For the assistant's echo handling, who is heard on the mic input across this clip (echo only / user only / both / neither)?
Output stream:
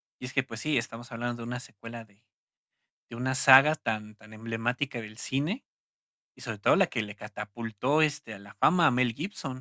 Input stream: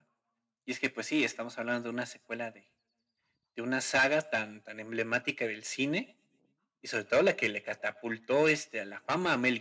echo only